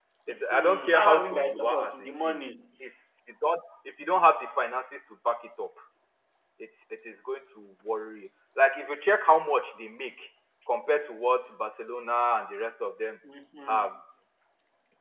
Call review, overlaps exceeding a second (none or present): present